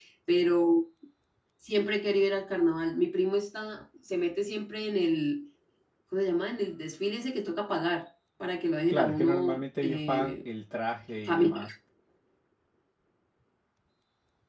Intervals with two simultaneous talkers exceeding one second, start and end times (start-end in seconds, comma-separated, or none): 8.9-10.3